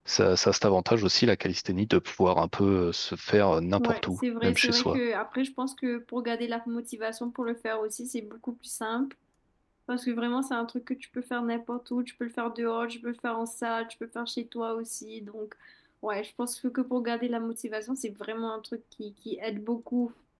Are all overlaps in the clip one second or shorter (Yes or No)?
No